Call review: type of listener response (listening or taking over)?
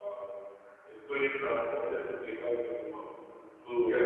listening